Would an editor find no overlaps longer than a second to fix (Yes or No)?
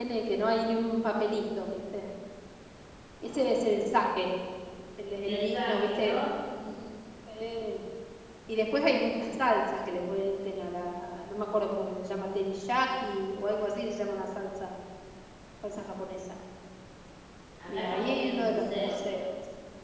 No